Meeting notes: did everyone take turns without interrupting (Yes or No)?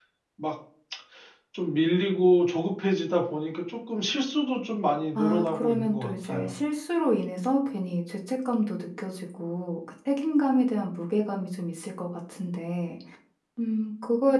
No